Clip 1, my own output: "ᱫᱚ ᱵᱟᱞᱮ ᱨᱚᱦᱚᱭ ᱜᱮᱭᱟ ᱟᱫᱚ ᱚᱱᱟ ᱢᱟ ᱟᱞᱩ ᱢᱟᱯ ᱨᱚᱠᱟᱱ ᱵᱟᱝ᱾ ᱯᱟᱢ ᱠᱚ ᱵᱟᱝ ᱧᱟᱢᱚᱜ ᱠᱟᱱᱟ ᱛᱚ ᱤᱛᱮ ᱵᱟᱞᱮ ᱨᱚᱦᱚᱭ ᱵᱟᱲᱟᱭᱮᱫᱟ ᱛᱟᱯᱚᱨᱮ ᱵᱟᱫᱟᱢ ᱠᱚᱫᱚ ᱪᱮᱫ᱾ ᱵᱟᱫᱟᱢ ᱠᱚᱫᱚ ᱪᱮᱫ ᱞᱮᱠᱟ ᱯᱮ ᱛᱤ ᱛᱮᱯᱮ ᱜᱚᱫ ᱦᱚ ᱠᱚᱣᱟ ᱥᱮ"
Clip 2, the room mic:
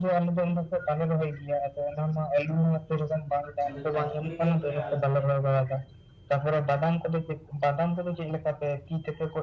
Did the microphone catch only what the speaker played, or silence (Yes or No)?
No